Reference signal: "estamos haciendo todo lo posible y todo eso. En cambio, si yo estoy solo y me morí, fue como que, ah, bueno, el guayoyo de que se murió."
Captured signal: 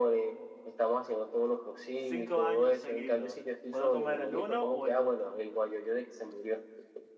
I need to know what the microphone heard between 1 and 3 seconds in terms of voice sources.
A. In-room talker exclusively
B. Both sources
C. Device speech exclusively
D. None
B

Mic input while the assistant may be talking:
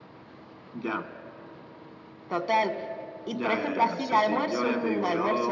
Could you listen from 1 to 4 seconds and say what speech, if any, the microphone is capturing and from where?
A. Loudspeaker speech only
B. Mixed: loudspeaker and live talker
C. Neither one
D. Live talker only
A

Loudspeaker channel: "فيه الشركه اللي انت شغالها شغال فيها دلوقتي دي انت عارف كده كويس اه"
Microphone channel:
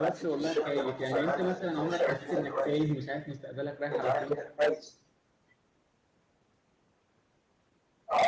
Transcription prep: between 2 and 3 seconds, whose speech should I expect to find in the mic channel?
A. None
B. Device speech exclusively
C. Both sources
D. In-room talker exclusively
C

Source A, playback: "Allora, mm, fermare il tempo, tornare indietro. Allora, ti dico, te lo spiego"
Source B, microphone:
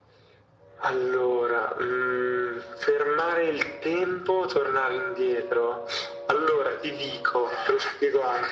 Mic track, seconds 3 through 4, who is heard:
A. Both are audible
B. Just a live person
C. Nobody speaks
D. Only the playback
D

